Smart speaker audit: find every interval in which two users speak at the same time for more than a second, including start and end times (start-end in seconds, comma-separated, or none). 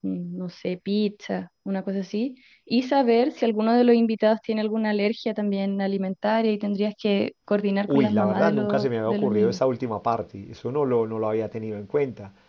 7.9-9.6